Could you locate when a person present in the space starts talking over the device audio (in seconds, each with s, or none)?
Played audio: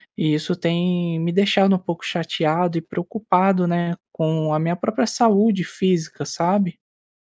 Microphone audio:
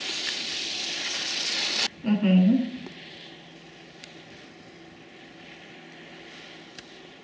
2.0 s